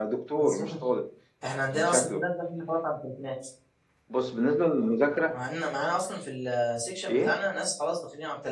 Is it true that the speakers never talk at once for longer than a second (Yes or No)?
Yes